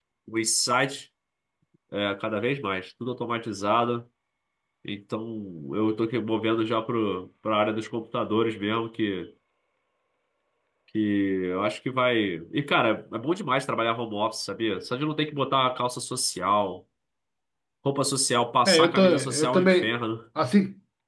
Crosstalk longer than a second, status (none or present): present